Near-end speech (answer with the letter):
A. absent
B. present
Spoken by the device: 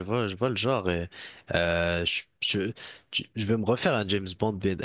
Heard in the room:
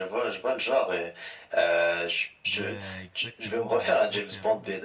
B